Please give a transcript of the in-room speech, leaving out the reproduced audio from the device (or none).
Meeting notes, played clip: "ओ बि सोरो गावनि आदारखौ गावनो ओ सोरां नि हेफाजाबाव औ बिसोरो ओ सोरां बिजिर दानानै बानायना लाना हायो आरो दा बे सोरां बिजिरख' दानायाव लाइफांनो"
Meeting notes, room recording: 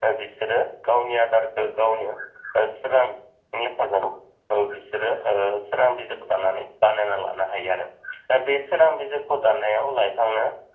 none